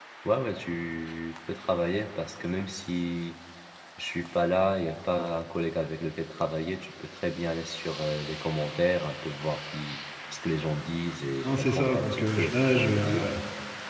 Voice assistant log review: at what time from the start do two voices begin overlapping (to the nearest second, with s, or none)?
11 s